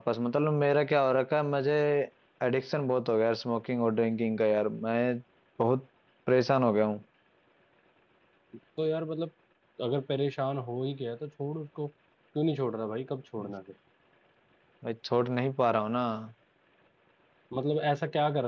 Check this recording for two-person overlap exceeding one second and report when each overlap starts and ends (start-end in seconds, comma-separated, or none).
none